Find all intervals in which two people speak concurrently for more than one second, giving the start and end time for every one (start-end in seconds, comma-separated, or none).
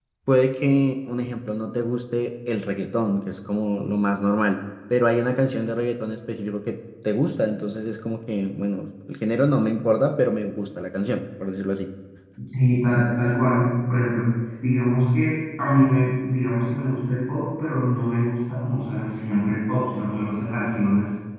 none